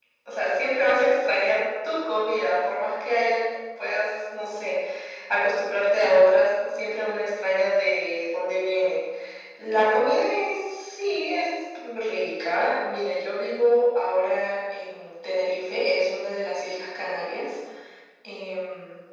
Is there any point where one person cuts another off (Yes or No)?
No